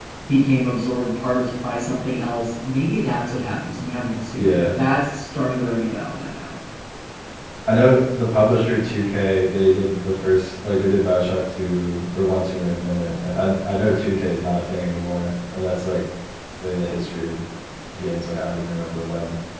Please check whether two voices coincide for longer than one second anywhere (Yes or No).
No